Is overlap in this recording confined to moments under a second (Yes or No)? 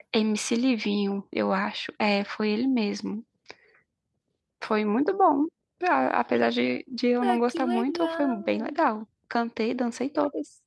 No